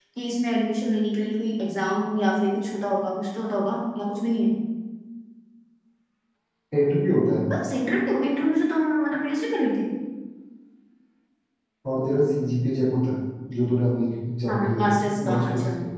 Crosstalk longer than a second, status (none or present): present